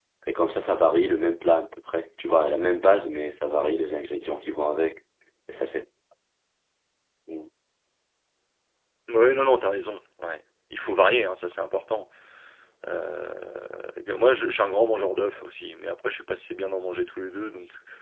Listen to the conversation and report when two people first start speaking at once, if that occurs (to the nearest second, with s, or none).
none